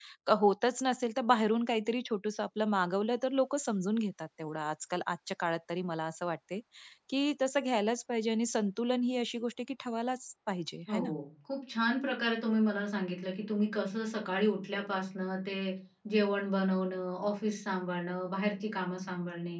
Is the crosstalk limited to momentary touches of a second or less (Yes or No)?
Yes